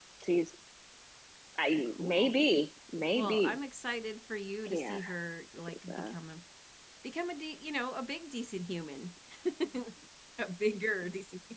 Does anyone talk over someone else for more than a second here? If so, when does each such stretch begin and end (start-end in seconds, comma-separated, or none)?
none